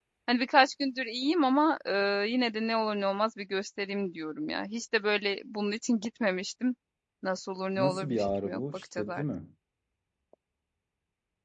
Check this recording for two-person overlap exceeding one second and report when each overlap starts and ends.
7.8-9.2

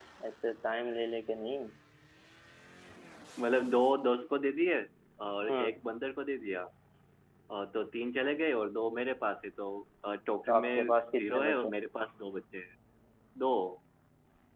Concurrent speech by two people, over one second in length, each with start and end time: 10.5-11.7

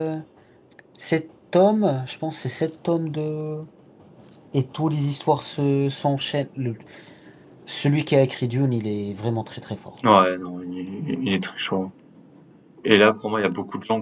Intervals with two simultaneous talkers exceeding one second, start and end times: none

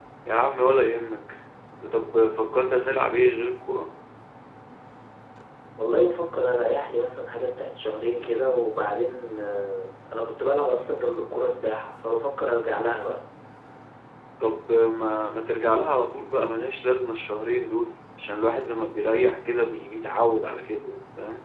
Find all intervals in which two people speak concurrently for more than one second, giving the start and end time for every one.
none

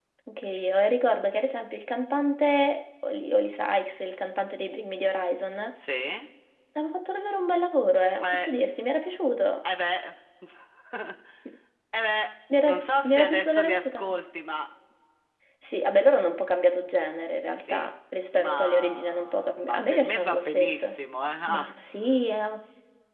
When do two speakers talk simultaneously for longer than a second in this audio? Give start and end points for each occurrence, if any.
12.7-14.2, 18.3-20.9

